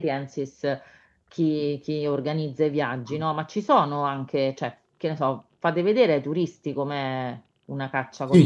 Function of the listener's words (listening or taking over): taking over